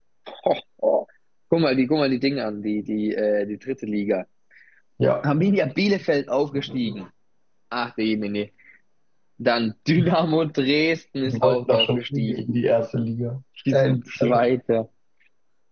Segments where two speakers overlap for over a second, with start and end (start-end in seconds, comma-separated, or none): 11.2-12.5